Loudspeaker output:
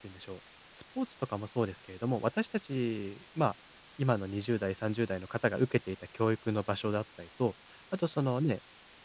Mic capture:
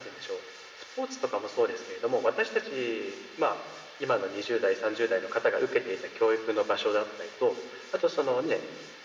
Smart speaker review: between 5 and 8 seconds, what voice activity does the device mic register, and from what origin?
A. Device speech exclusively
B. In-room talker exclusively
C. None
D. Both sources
A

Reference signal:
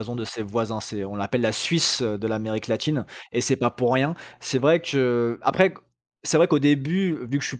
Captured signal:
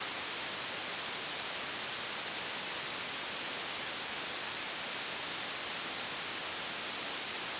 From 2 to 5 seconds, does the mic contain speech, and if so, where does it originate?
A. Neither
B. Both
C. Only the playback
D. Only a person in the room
A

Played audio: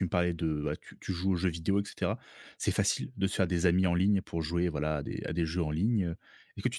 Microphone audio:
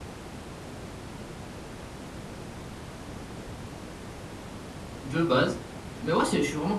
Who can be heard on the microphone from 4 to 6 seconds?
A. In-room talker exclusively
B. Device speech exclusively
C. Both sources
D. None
A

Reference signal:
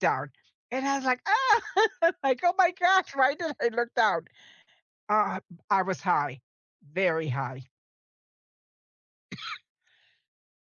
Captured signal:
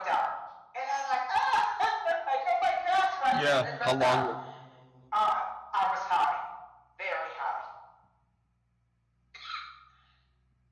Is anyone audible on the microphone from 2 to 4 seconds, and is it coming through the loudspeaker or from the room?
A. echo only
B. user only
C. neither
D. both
D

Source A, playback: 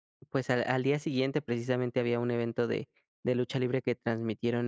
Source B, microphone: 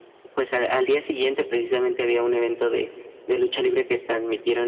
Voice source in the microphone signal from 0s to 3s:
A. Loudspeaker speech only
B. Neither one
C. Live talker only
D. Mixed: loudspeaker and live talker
A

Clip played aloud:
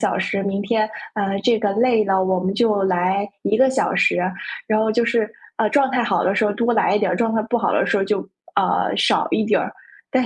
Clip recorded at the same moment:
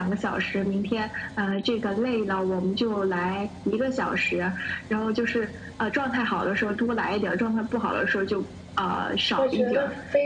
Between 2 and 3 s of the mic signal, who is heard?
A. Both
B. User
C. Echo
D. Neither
C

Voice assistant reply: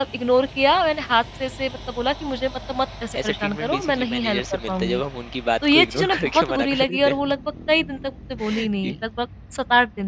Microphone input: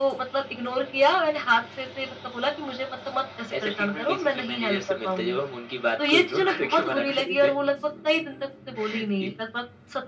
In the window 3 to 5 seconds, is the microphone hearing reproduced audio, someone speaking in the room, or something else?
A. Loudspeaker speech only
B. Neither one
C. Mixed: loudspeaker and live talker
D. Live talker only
A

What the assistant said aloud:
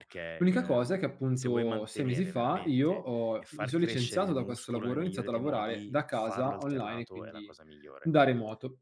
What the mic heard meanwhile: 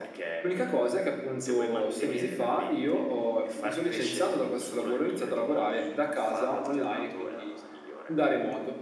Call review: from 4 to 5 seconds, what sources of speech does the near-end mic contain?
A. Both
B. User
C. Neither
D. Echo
D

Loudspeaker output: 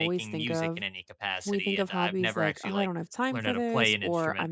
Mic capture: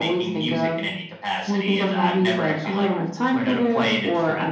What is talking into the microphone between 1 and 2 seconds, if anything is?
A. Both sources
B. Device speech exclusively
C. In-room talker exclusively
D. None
B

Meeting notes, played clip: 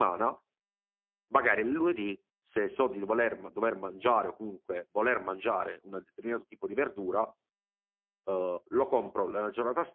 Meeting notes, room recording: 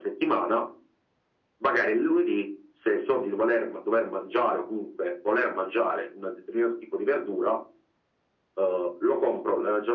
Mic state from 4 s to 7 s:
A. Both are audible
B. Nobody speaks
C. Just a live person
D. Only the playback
D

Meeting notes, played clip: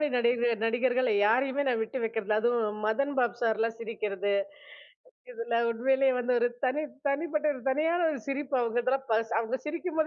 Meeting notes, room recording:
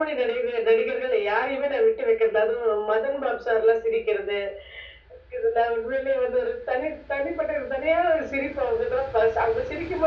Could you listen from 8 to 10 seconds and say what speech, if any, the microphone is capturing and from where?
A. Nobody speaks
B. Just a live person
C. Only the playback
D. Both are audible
C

